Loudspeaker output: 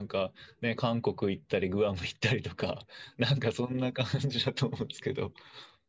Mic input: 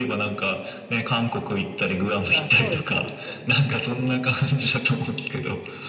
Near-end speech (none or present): present